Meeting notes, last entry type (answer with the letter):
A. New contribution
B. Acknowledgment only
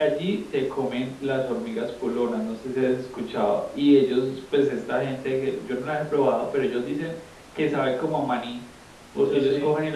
B